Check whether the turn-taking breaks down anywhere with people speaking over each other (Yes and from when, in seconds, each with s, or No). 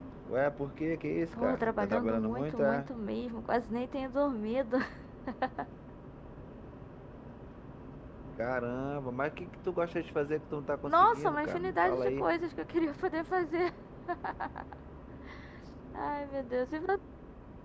Yes, from 1.3 s